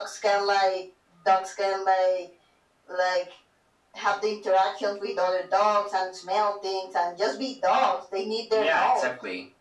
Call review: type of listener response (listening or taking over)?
taking over